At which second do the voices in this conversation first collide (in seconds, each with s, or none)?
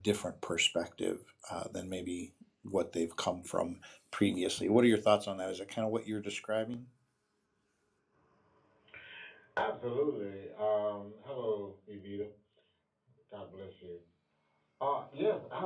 none